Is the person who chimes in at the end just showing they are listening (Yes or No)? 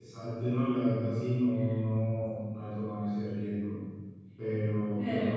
Yes